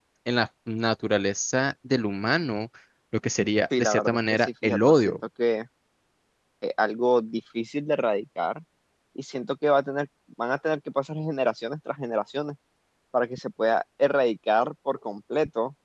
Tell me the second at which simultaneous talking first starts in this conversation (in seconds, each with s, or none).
3.8 s